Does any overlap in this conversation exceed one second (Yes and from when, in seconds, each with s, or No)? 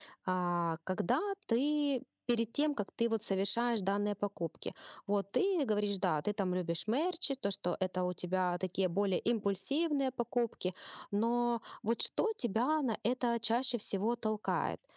No